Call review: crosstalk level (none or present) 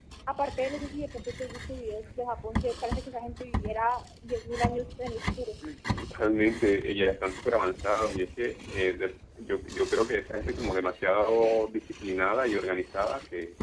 none